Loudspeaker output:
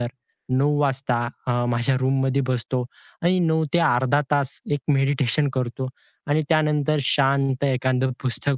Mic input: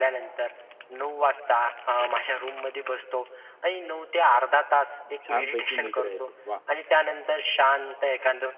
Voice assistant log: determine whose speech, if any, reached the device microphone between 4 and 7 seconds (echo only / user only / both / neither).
both